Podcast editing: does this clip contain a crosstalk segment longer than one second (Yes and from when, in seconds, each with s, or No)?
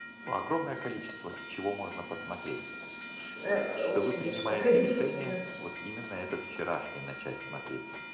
Yes, from 3.8 s